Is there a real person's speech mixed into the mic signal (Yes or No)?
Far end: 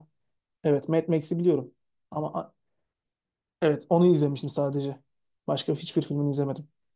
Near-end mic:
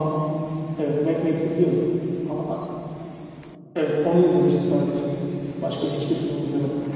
No